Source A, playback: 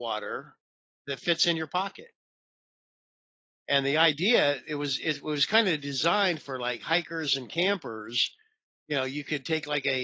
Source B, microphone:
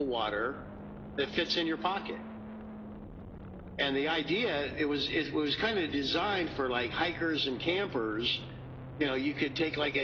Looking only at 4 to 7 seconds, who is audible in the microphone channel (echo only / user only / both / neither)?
echo only